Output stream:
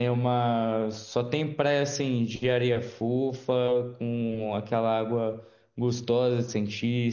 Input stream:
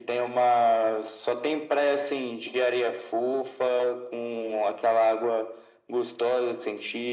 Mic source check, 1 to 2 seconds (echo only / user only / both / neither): echo only